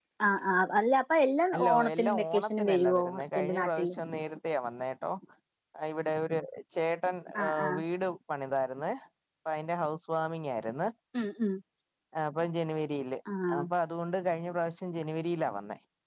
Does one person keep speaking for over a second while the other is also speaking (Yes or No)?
Yes